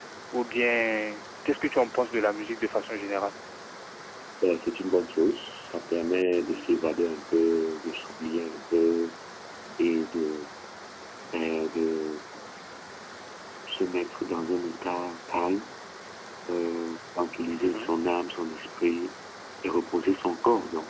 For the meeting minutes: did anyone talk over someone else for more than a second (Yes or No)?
No